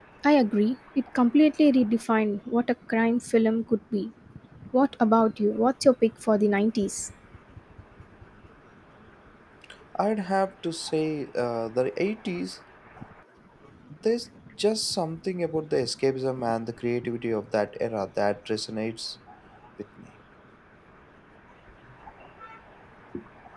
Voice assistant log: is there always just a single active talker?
Yes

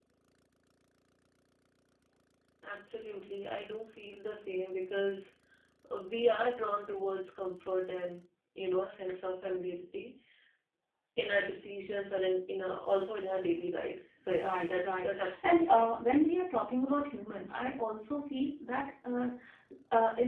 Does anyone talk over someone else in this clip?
Yes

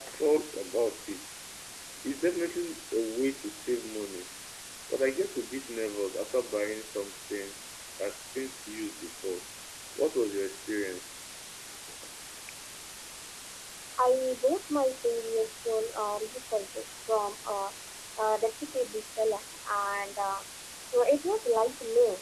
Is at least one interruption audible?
No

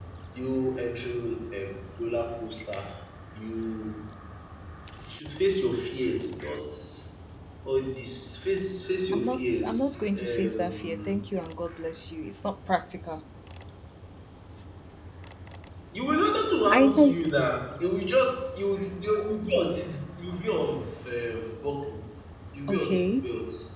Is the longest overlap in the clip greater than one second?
Yes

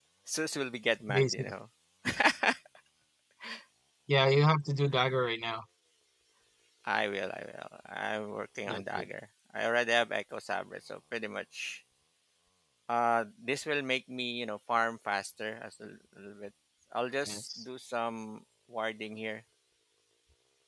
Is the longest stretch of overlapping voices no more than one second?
Yes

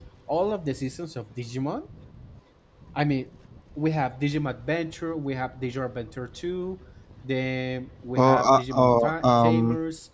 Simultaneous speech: Yes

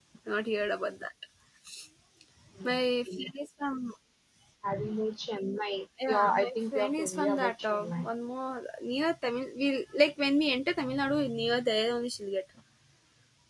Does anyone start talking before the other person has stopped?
Yes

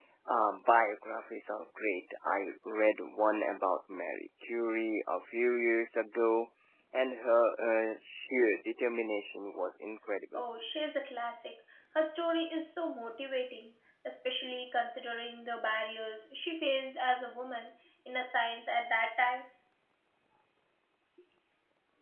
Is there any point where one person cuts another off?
No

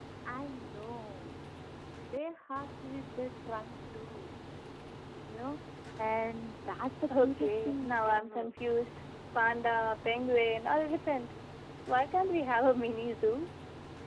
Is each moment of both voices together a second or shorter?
No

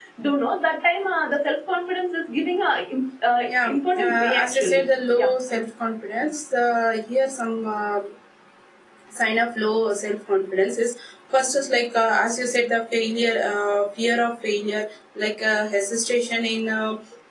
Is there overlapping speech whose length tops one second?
Yes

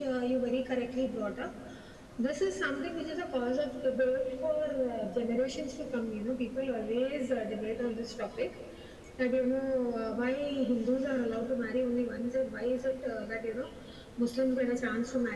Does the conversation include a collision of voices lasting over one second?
No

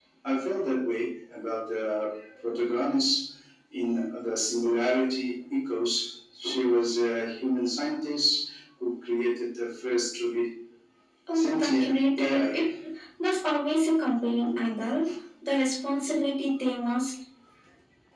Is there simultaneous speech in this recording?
Yes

